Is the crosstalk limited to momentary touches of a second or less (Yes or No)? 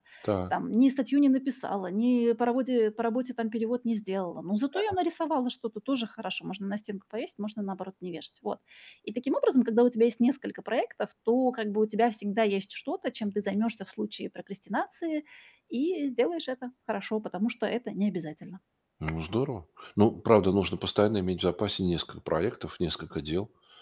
Yes